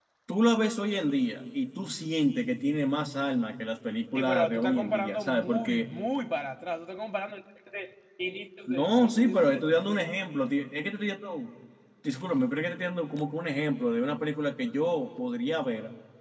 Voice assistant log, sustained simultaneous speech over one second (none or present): present